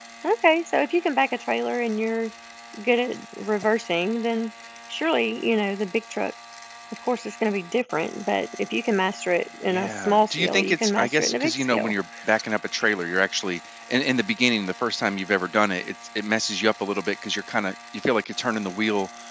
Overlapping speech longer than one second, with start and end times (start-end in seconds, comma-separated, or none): 9.7-11.9